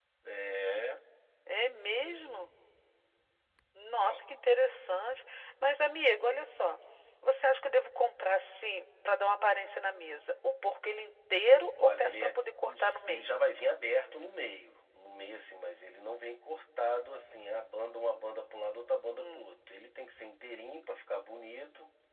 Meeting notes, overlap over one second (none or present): present